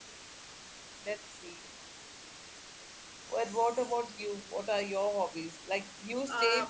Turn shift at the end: No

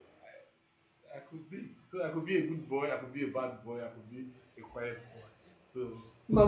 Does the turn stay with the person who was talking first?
No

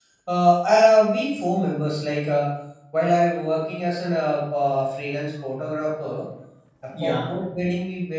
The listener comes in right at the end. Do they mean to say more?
No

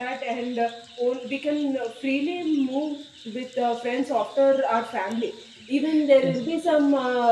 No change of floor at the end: Yes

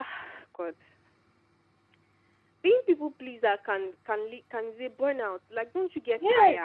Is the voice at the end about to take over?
Yes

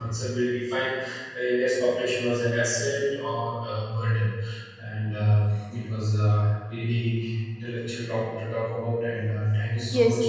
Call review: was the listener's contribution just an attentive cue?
No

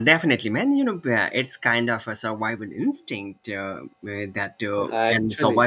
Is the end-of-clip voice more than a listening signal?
No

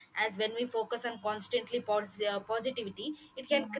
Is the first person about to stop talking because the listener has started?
No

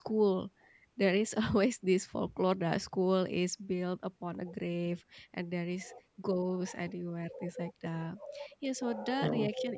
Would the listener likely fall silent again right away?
Yes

